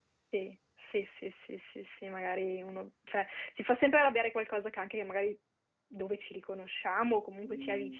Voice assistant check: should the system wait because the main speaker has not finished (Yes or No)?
No